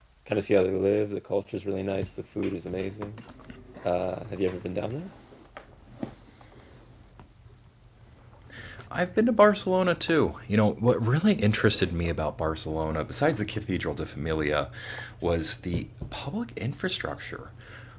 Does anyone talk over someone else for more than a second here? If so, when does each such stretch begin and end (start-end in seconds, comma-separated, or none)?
none